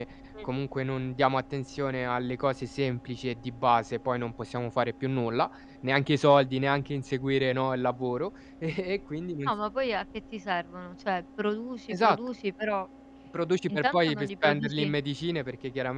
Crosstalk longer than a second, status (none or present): present